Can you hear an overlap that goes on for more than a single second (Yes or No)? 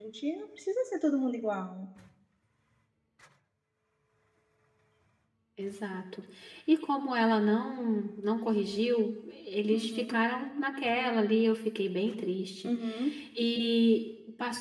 No